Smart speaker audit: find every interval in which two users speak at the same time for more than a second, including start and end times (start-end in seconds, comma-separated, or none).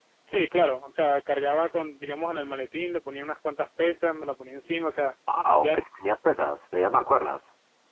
none